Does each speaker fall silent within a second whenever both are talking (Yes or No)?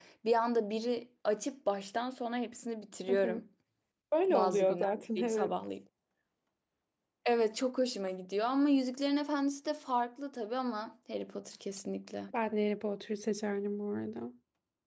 No